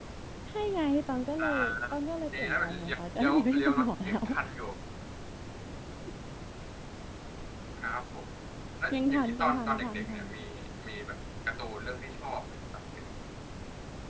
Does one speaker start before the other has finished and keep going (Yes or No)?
Yes